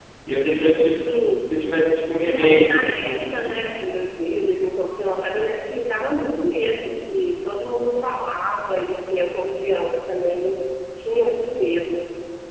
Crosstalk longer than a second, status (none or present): present